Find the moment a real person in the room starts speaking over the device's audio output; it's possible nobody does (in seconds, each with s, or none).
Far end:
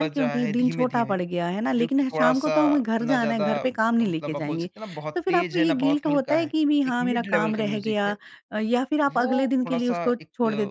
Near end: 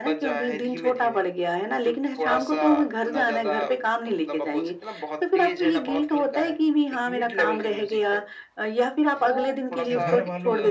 9.8 s